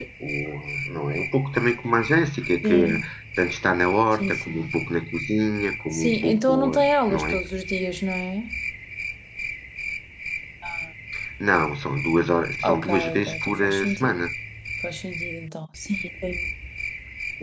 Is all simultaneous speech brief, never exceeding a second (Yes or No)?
No